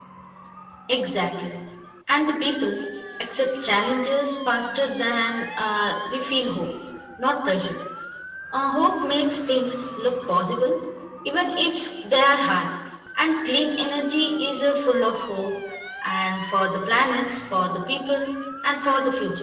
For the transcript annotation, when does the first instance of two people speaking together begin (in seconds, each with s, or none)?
none